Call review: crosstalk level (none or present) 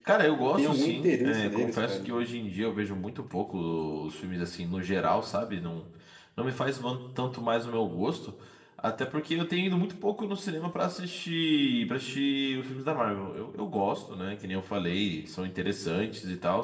present